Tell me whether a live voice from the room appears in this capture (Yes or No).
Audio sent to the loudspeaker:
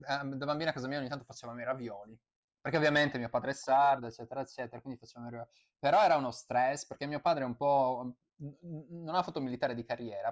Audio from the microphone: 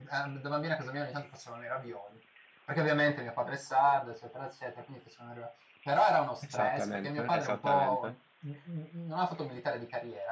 Yes